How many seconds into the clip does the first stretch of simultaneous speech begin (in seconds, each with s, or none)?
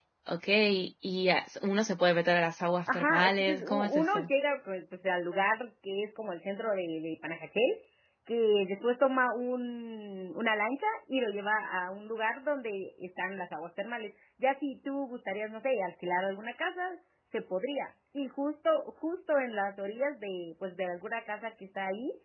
2.9 s